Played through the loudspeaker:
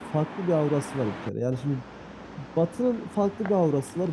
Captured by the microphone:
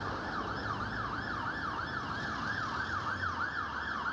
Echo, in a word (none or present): none